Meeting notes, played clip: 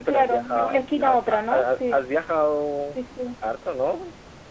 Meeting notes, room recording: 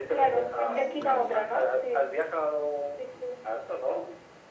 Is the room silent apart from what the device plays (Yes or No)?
No